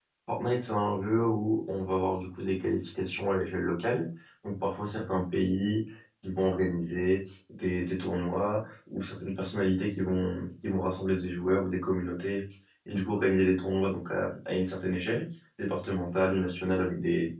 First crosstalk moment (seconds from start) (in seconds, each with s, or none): none